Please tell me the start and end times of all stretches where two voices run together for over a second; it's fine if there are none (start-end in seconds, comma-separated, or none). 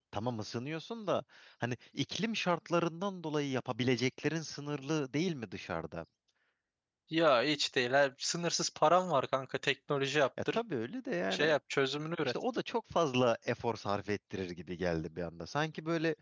none